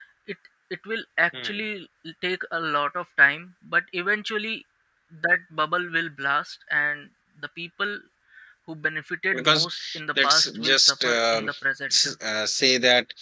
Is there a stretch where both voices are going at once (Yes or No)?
Yes